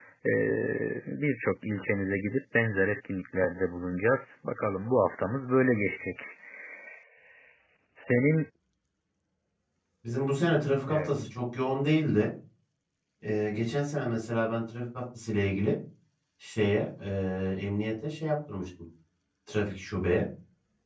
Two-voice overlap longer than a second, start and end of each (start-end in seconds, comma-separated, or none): none